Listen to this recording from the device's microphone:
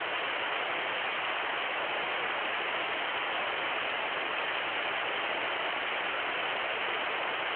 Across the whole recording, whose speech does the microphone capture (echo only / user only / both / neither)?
neither